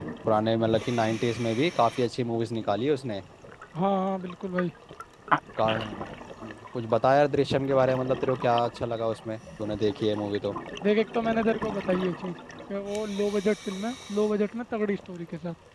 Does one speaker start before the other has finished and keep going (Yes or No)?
No